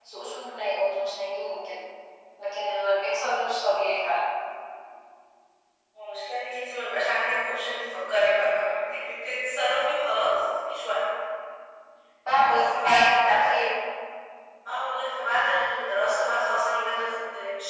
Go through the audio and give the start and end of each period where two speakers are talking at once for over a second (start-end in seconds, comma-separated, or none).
12.5-13.8